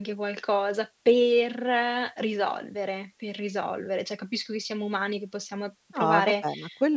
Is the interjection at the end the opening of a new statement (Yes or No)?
Yes